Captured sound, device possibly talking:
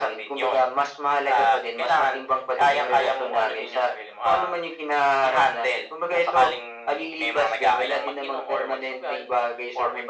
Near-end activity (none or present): none